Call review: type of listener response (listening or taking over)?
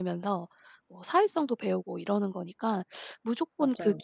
listening